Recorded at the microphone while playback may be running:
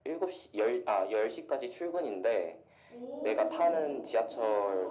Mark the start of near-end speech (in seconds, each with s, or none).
2.9 s